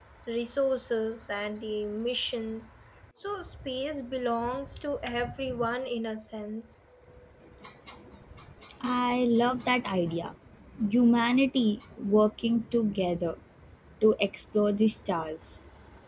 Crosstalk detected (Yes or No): No